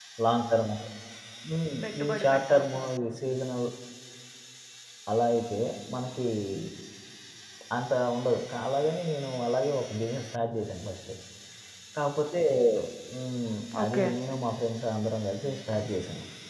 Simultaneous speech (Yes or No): Yes